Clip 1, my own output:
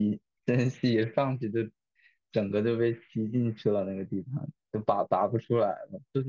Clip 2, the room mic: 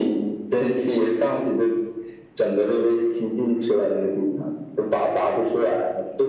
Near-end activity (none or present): none